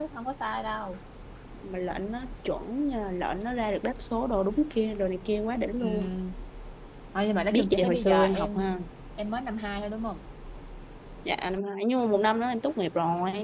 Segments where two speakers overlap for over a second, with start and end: 7.5-8.7

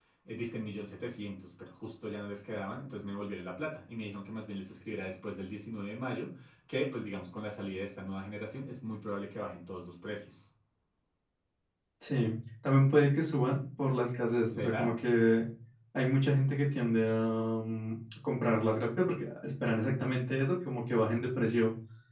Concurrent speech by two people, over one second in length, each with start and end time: none

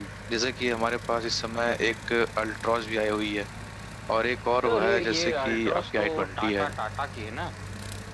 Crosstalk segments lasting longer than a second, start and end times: 4.7-6.7

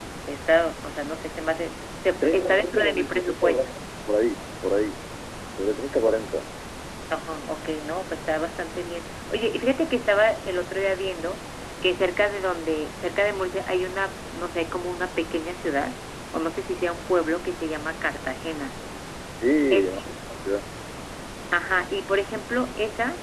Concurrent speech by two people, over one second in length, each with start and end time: 2.2-3.7

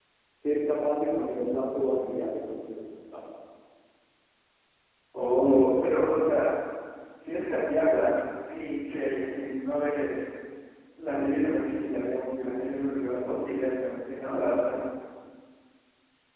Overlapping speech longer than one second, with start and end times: none

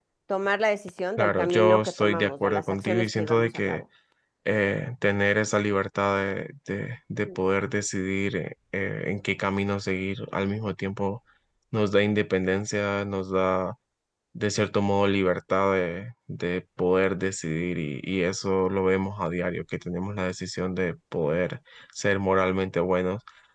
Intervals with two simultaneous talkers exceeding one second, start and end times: 1.2-3.8

